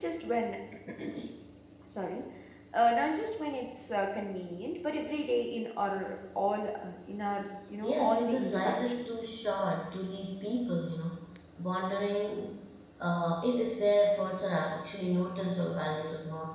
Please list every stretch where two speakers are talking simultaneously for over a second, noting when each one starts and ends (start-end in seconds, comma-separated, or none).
7.8-9.2